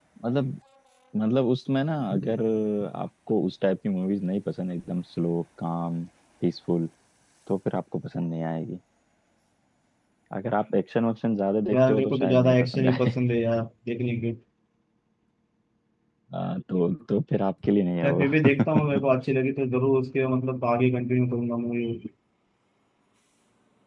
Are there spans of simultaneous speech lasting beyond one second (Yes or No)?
Yes